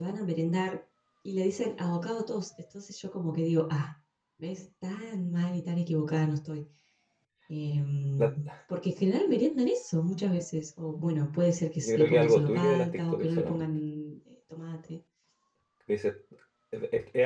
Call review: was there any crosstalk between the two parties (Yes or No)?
Yes